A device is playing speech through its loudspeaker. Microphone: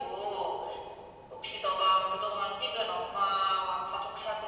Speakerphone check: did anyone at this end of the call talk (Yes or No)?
No